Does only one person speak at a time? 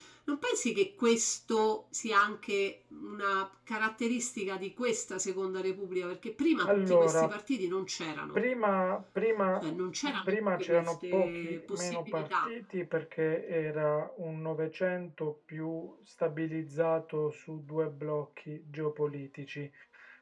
No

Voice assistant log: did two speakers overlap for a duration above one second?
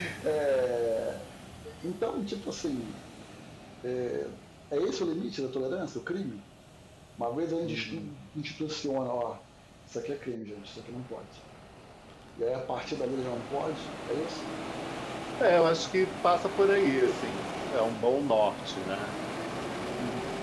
No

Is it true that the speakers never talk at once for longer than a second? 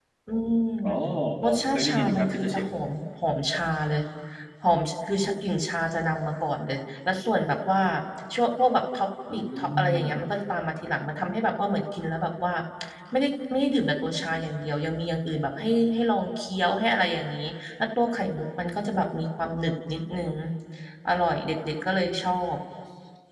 No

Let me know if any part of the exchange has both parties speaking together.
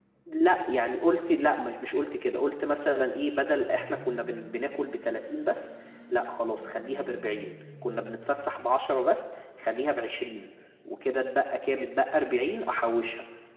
No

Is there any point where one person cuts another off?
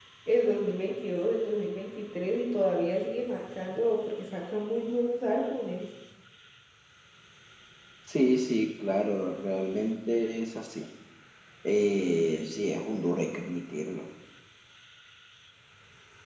No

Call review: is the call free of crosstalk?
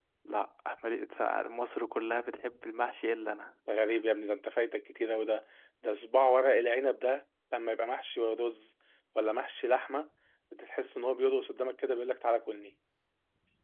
Yes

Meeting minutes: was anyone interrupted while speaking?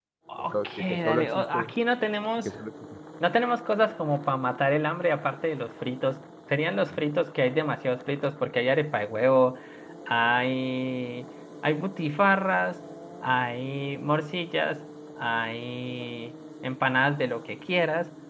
Yes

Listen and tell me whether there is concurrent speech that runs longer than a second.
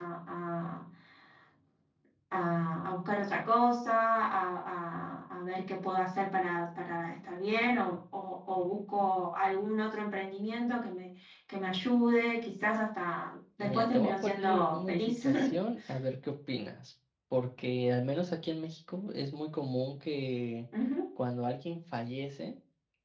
Yes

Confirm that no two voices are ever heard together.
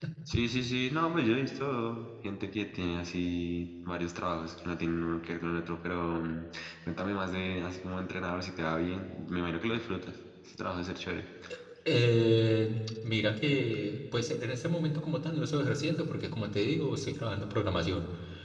Yes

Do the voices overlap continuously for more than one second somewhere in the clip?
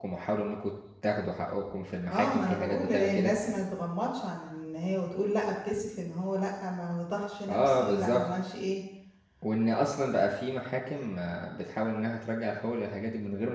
Yes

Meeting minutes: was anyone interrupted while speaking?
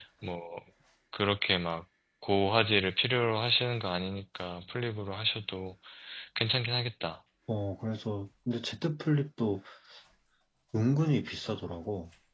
No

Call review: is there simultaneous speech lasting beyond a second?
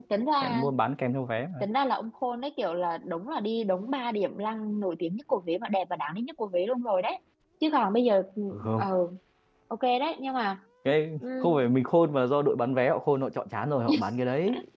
No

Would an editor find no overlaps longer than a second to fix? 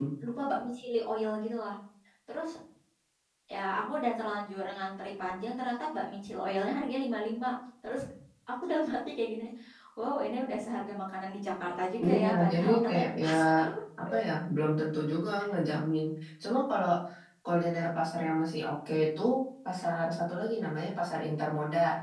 No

